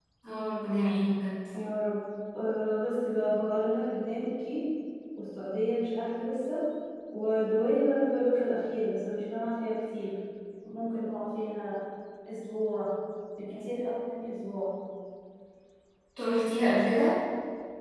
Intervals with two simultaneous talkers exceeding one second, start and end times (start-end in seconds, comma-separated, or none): none